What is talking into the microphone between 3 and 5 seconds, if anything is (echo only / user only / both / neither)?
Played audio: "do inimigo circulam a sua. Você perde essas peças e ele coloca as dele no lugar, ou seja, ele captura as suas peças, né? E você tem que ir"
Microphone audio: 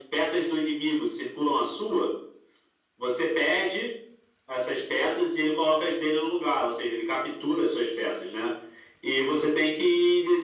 echo only